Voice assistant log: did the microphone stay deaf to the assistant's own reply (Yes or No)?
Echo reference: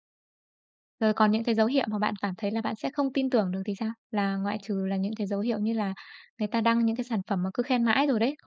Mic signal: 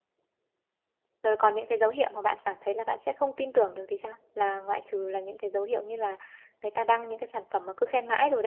No